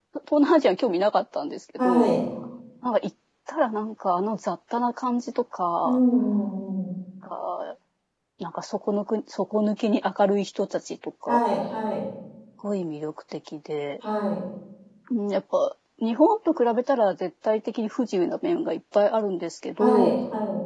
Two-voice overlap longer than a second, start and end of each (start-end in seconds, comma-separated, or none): none